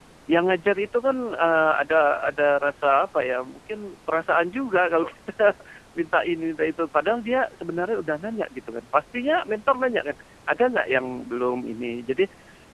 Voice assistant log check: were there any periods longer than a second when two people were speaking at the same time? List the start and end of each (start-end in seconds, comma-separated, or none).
none